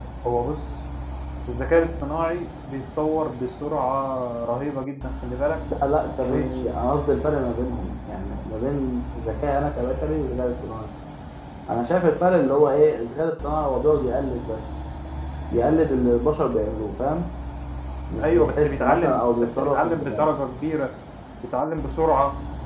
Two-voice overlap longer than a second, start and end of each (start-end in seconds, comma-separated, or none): 18.2-20.2